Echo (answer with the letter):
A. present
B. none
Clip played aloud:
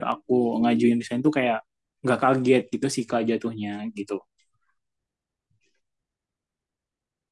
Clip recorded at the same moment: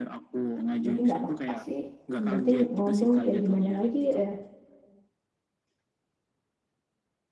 A